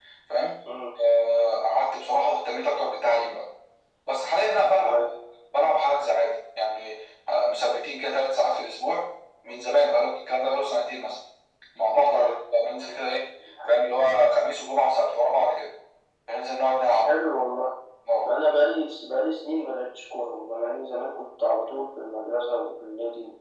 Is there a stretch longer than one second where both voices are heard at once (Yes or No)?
No